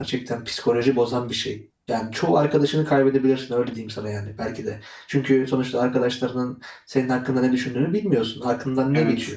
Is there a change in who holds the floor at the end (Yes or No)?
No